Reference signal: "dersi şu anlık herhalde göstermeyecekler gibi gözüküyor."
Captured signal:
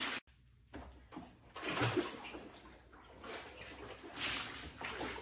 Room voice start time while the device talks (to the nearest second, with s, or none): none